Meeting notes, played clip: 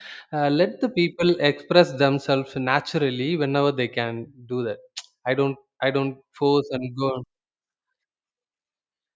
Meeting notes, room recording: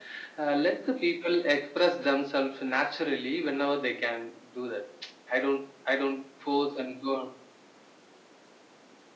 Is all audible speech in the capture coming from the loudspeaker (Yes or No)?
Yes